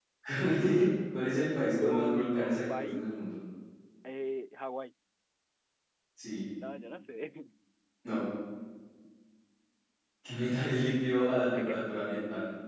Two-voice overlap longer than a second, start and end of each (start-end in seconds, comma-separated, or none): 1.8-3.2